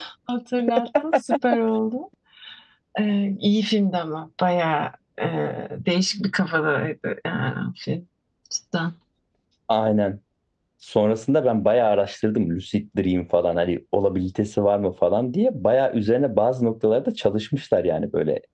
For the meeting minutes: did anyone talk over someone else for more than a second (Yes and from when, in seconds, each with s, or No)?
No